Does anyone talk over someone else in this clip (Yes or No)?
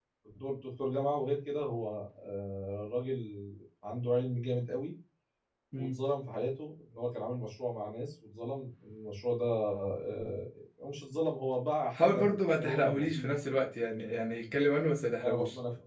Yes